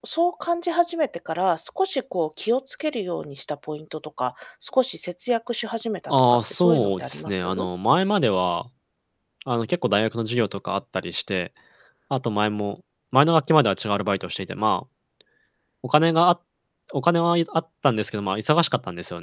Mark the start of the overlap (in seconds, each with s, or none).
6.1 s